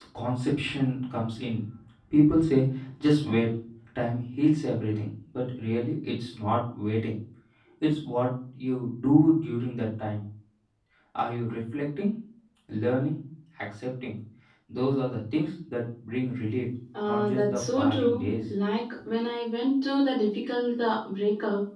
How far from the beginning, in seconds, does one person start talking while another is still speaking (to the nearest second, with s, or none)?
17 s